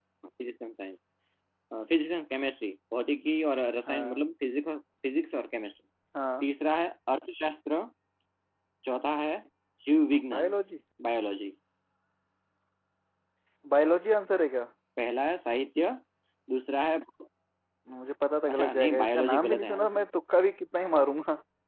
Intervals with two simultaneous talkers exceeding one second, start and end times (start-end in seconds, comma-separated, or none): 18.5-20.1